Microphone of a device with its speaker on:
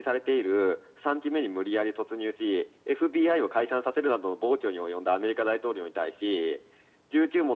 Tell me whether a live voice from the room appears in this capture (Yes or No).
No